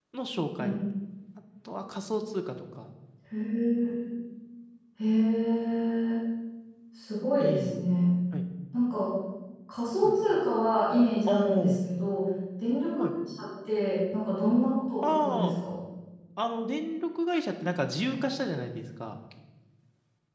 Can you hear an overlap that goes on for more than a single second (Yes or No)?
No